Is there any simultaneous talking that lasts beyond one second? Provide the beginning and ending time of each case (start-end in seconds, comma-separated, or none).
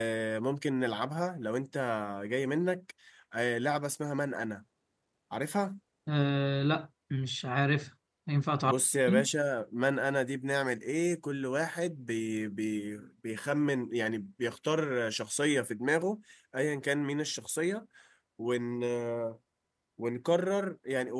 none